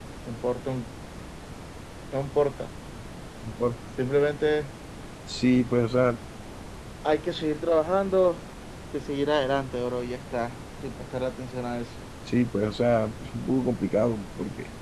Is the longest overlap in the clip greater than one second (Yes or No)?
No